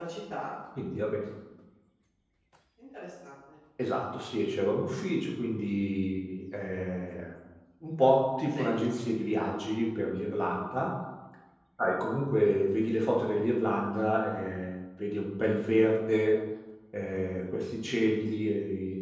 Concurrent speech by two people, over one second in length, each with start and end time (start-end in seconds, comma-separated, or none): none